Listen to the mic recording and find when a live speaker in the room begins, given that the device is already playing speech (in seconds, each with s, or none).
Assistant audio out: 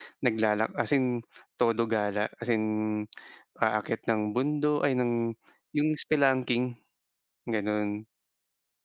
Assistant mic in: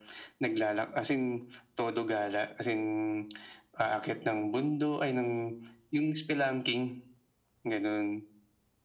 none